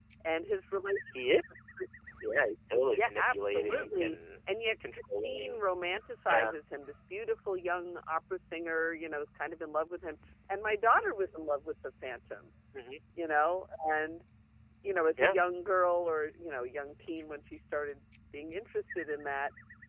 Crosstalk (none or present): present